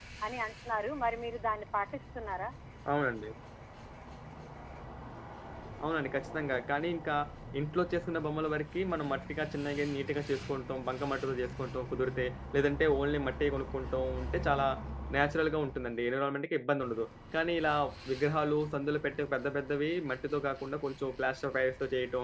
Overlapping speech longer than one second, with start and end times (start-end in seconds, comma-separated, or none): none